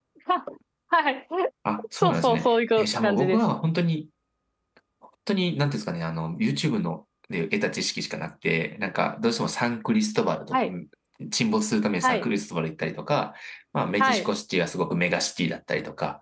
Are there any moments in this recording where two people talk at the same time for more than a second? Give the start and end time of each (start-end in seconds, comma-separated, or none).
2.0-3.4